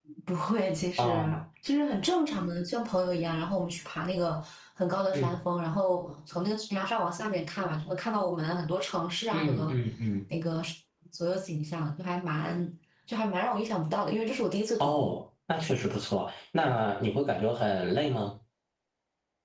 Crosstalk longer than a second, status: none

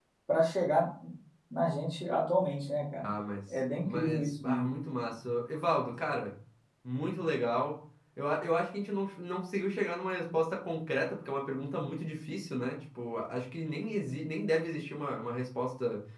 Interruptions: present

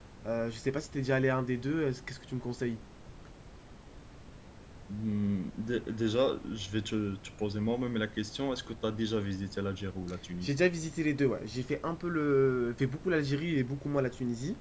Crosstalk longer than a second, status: none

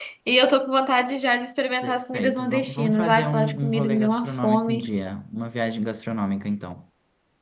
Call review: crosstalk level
present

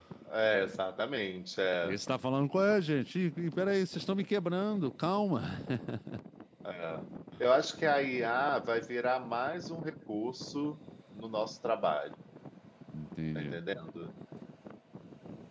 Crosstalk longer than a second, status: none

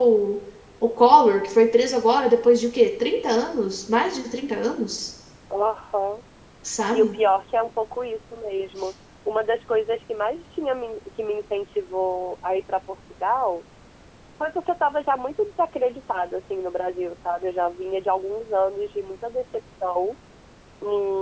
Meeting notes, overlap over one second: none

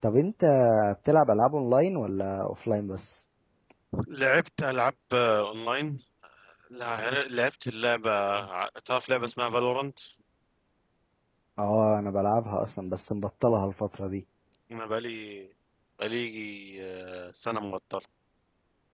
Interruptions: none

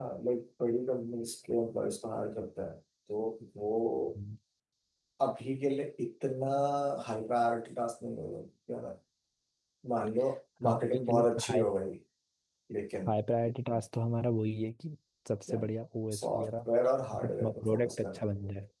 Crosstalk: present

